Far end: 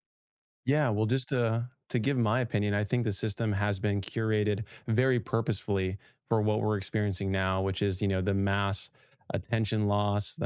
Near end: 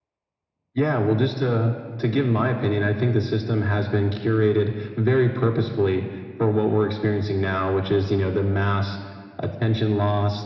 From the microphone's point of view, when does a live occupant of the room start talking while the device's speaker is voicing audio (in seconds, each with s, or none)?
none